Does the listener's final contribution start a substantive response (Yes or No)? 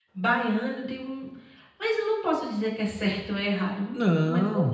No